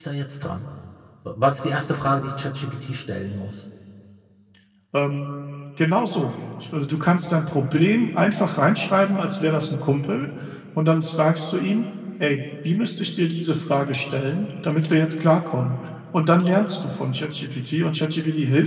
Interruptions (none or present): none